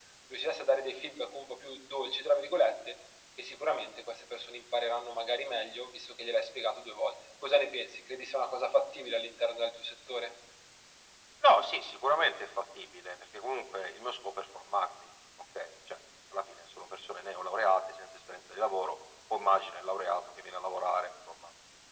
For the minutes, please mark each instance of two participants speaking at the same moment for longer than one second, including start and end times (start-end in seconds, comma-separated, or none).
none